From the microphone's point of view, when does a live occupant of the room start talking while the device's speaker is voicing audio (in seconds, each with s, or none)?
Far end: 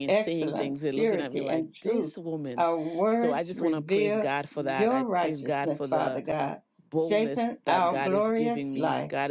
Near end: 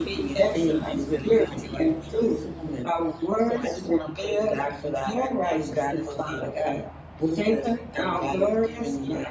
none